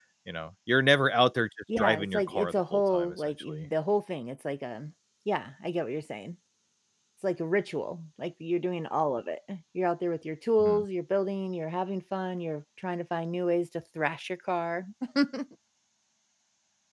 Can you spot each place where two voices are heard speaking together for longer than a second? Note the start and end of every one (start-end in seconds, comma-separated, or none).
1.8-3.7